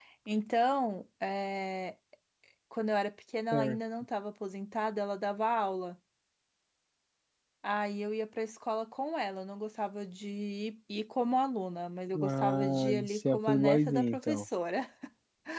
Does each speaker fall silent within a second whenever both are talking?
No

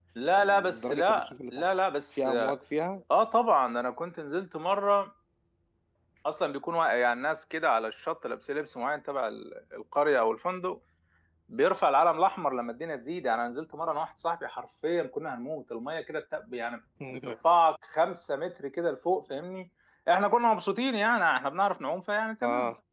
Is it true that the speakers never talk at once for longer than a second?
No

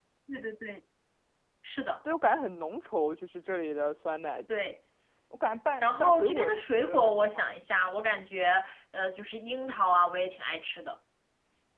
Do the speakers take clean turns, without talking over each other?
No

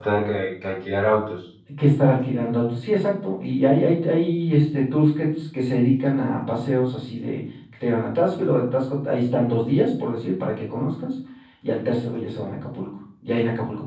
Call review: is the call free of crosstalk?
Yes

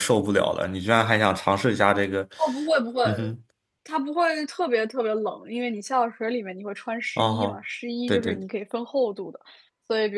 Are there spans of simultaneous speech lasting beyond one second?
No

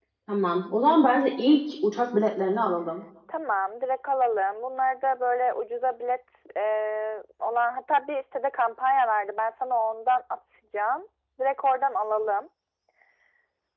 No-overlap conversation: Yes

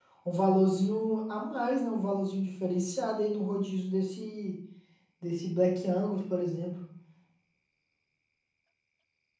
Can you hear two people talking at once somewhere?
No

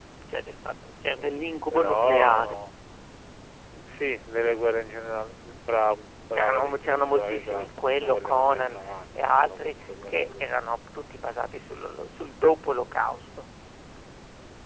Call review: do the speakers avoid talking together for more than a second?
No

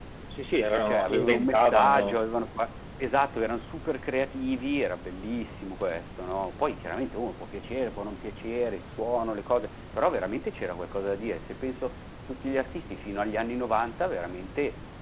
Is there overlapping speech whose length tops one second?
Yes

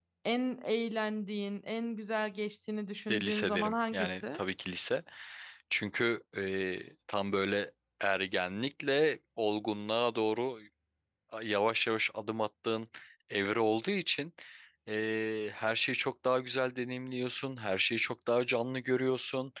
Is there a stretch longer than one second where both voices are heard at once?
Yes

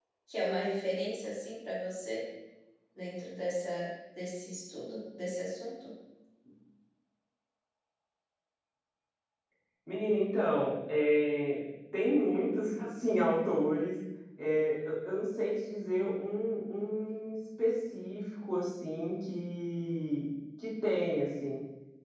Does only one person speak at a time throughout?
Yes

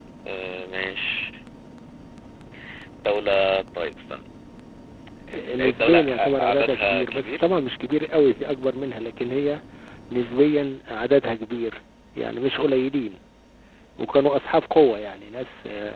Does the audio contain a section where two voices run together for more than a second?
Yes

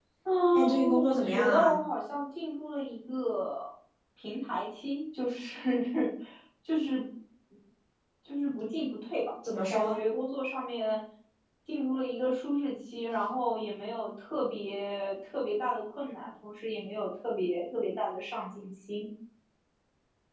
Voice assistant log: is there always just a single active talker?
No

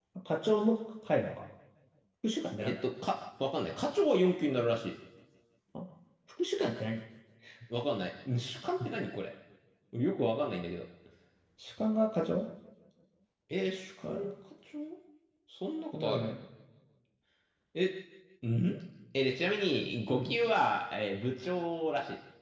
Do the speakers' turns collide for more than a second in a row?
No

